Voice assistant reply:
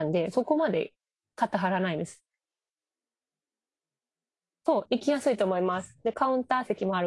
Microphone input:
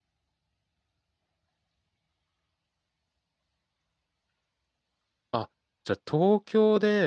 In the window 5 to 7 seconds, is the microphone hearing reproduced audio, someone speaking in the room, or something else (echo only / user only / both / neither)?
user only